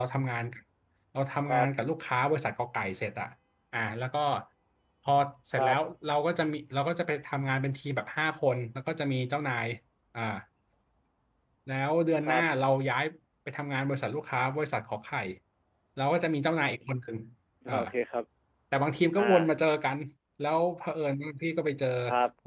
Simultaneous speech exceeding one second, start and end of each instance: none

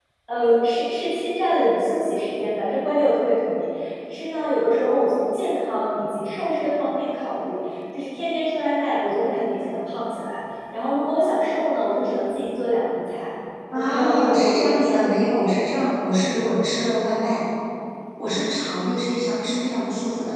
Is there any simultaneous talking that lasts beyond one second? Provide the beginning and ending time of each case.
13.7-15.7

